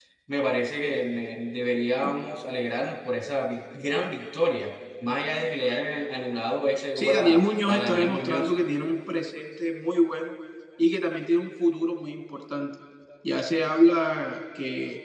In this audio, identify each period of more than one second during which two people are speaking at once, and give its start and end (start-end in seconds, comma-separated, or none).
7.0-8.5